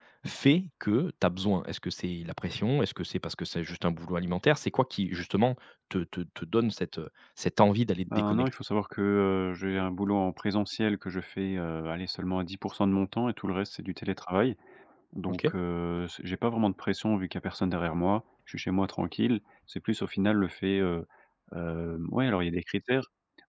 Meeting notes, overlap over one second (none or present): none